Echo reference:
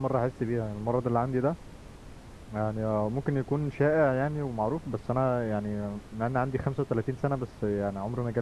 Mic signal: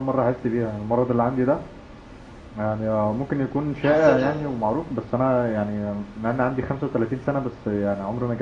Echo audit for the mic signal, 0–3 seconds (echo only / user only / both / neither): echo only